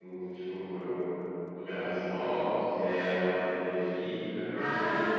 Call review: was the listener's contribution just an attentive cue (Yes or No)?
No